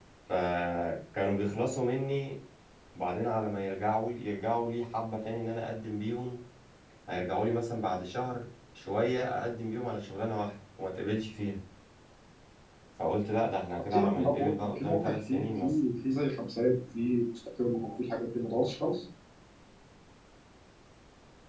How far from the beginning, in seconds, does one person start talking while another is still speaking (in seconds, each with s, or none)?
13.9 s